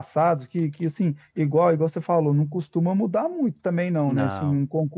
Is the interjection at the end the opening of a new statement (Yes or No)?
No